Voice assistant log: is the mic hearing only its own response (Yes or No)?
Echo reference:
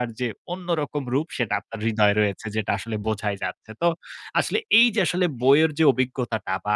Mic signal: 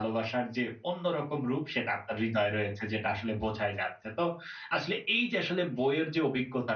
Yes